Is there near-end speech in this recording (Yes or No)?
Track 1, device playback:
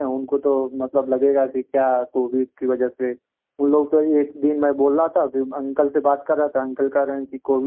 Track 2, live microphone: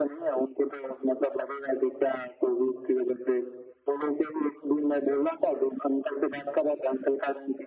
No